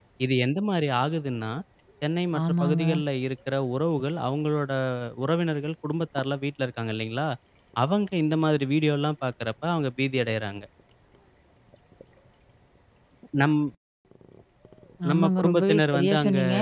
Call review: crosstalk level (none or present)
present